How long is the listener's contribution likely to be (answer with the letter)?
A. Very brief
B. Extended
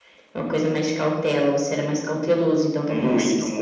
B